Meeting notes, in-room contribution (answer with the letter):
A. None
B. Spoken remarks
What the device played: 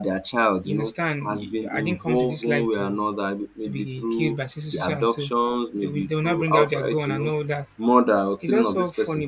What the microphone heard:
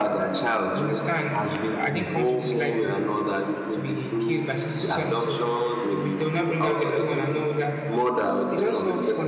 A